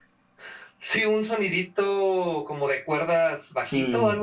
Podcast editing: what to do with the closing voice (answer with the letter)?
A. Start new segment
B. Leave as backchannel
A